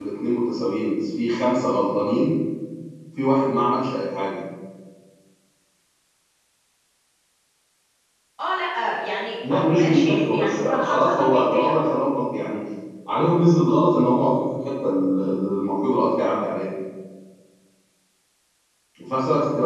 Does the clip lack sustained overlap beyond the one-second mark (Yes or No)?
No